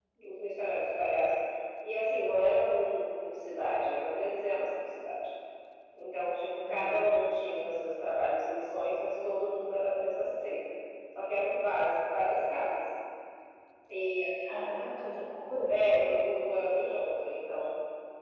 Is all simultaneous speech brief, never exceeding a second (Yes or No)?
Yes